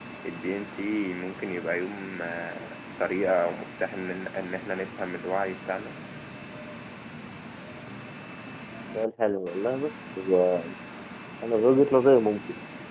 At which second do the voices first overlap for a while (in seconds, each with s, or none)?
none